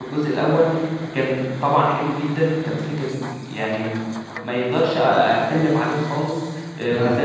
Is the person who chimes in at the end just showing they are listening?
Yes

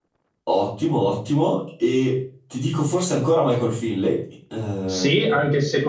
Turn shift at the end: Yes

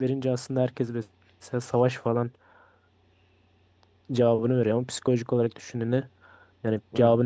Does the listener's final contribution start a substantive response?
No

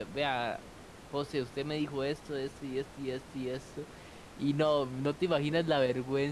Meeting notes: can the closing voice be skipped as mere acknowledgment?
Yes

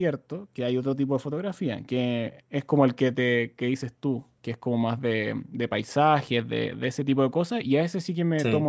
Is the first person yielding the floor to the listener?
No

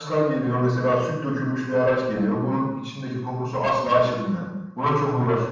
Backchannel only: Yes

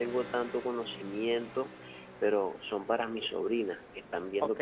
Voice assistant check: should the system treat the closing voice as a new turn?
No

